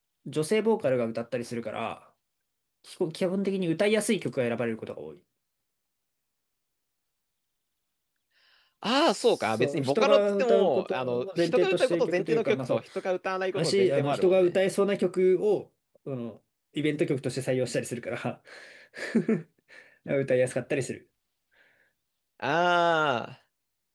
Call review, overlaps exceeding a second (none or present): present